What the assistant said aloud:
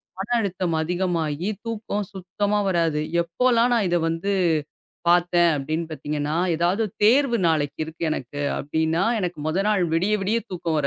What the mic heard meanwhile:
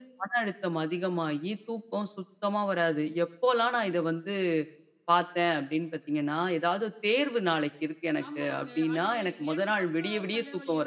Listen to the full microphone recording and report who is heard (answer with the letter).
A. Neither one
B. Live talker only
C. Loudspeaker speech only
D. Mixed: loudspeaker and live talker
D